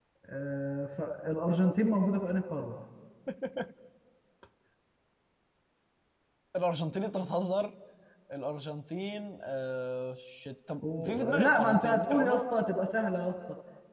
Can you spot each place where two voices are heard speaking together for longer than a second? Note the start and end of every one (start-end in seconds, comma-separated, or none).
10.9-12.4